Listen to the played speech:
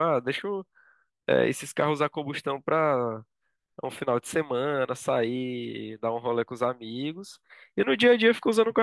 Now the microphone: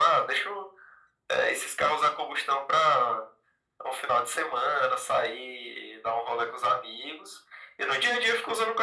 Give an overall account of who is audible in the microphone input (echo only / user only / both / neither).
echo only